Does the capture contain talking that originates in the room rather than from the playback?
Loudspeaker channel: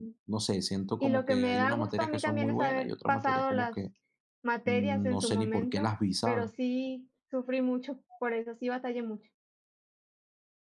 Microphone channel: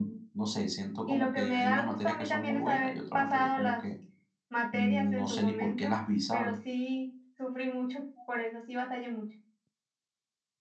No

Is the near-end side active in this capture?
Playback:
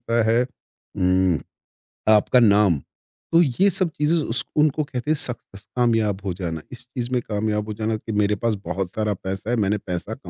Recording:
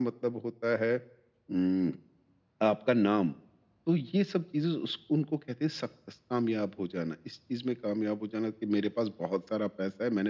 No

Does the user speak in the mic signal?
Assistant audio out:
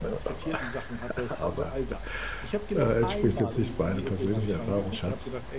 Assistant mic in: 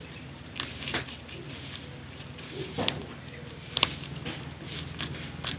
No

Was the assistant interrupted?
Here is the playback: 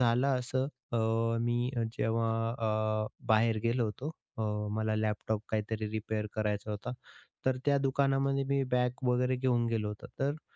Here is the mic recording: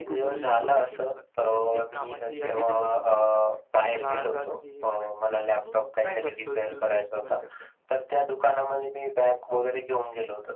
Yes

